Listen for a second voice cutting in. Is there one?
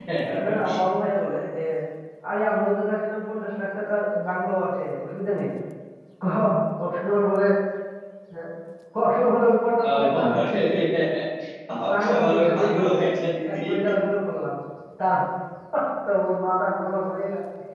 Yes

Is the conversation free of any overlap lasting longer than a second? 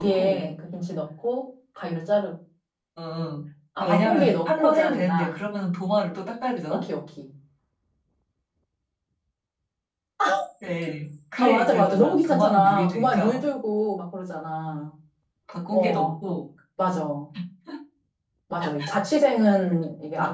No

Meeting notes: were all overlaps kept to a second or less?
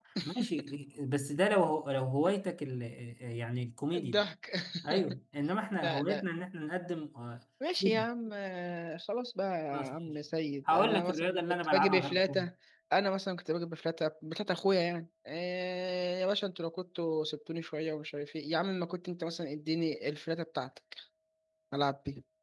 No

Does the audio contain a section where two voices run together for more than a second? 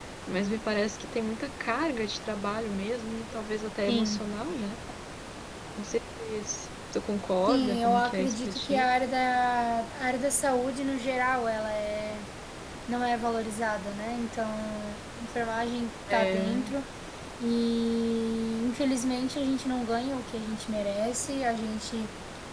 Yes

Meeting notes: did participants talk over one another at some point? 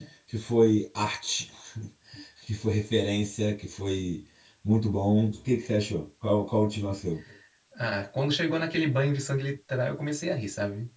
No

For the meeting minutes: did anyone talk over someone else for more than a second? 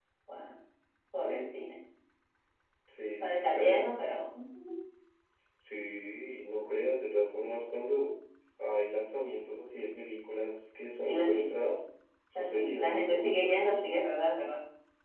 Yes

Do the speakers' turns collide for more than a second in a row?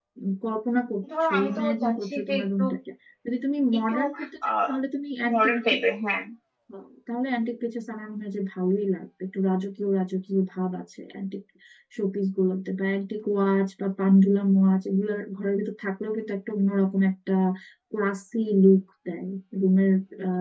Yes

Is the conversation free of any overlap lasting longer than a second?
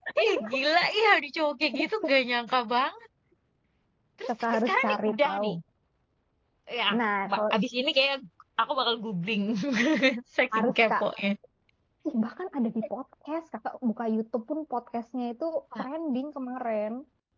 No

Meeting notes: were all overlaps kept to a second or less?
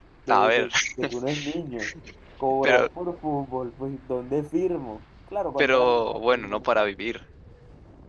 No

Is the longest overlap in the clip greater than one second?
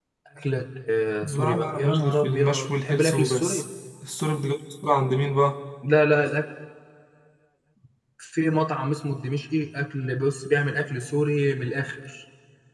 Yes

